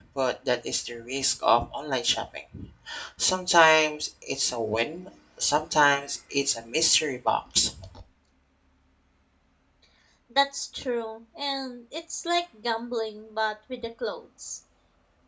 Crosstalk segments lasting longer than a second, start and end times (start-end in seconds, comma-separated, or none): none